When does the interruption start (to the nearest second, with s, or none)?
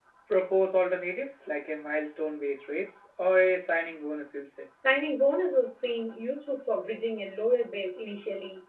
none